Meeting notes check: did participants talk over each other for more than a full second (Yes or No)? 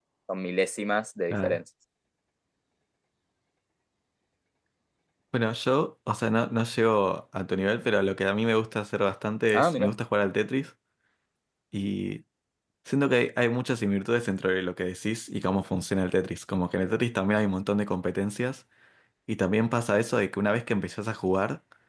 No